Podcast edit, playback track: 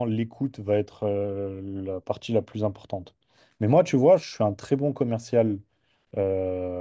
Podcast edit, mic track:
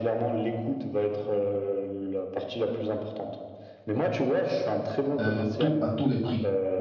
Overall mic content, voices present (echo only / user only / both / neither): both